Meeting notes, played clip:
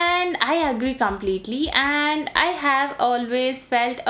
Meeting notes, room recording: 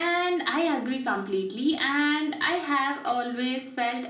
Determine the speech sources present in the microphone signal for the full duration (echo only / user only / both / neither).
echo only